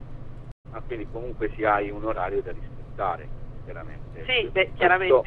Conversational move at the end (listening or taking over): taking over